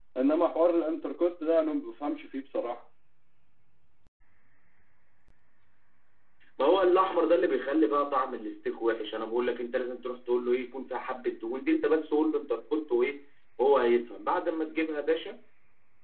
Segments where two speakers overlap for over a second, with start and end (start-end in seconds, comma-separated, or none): none